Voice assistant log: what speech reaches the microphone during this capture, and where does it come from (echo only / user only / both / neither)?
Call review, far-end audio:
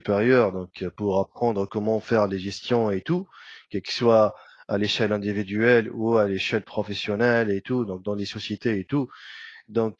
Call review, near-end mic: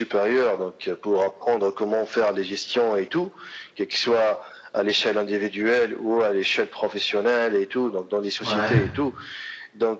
both